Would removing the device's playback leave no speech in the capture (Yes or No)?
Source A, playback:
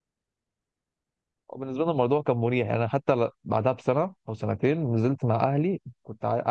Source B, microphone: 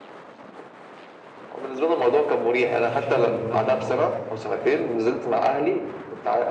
No